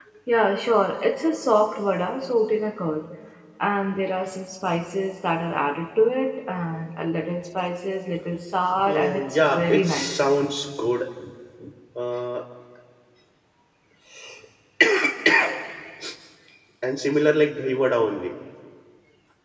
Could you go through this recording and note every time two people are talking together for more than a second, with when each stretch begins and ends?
8.9-10.2

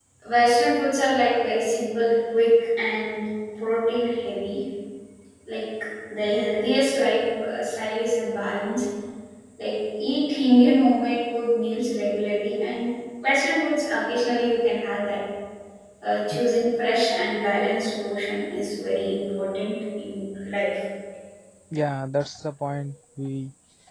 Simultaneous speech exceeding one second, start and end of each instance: none

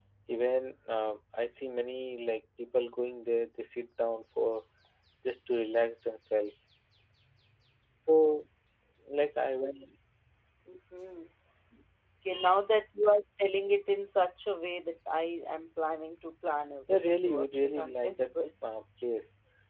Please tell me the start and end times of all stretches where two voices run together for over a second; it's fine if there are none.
16.9-18.2

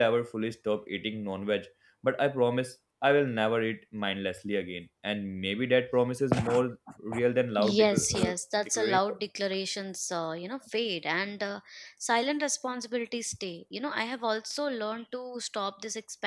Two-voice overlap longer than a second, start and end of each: 7.6-9.2

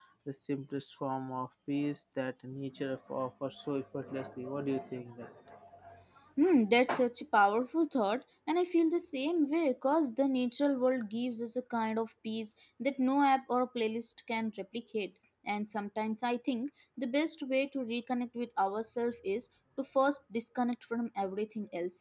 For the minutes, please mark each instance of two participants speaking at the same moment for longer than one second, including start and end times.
none

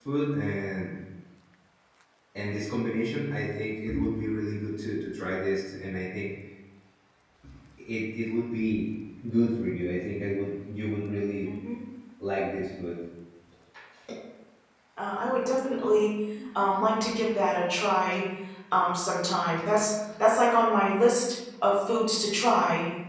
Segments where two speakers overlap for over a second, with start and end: none

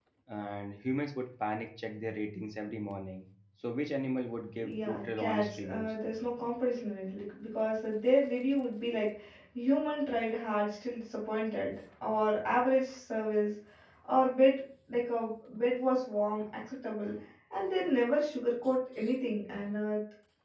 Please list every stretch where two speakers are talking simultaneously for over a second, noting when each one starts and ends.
4.6-5.9

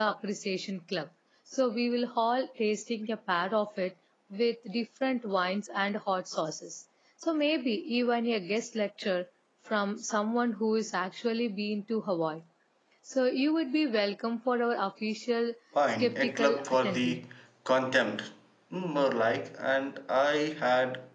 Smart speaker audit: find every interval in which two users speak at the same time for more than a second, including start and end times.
16.0-17.2

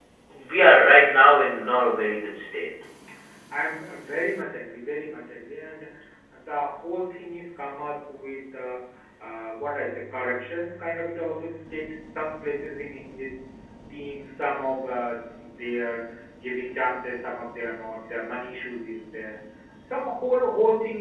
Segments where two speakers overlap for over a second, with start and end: none

